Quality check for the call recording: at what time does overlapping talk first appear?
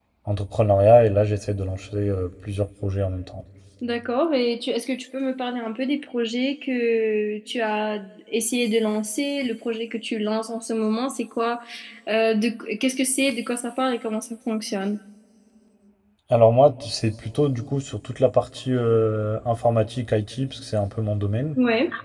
none

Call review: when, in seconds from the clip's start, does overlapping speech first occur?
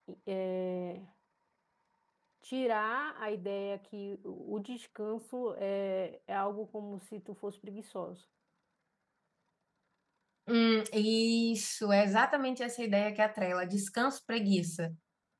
none

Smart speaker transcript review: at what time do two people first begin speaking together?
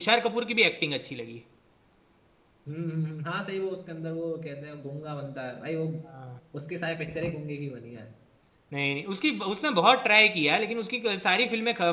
none

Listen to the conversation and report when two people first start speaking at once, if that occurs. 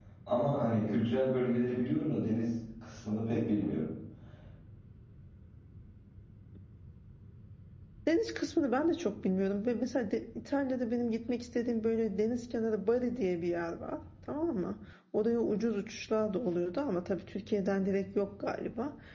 none

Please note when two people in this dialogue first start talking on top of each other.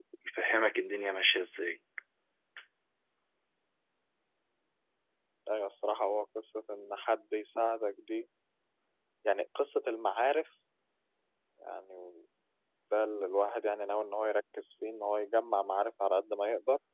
none

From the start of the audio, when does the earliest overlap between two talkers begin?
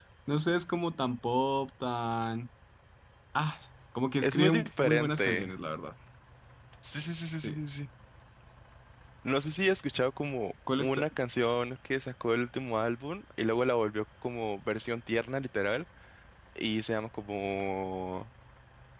4.2 s

